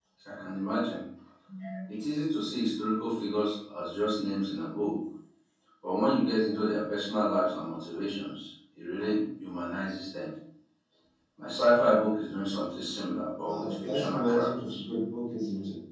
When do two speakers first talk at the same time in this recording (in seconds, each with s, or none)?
13.4 s